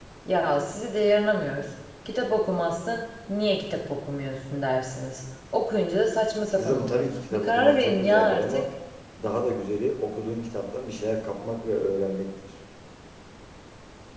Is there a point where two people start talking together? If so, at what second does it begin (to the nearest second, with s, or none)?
7 s